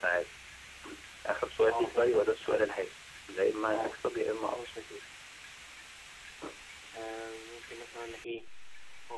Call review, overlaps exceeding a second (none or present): present